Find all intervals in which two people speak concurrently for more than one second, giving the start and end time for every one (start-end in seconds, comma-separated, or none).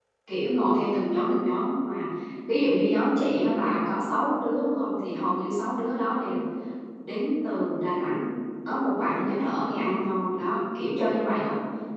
none